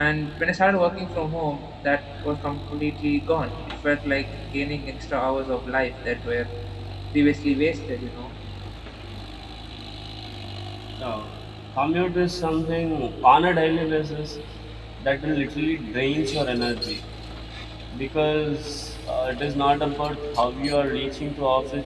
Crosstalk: none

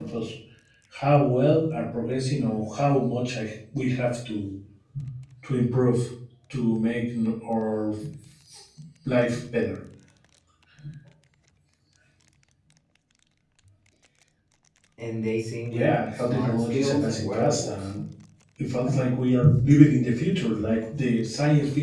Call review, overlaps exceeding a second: present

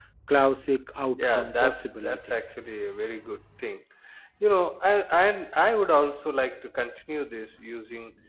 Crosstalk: present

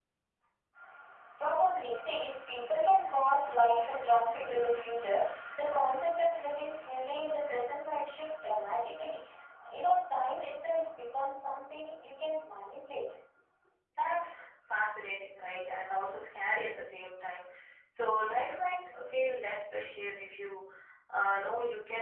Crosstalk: none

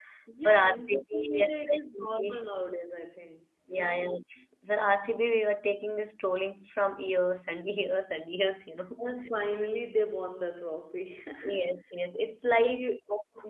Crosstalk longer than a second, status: present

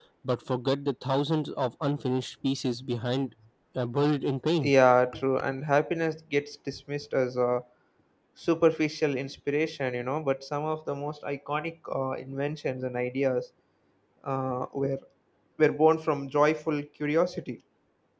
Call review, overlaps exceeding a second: none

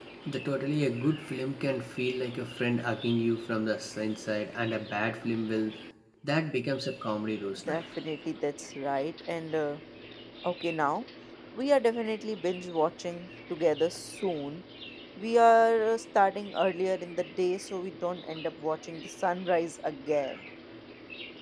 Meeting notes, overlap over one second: none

